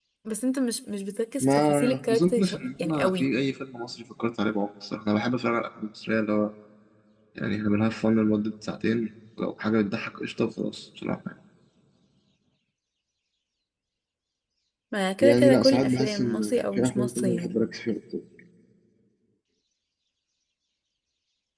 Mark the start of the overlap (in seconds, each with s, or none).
1.4 s